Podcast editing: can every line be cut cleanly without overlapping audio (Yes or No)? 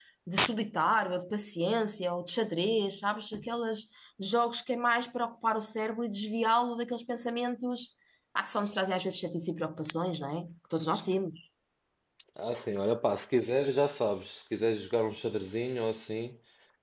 Yes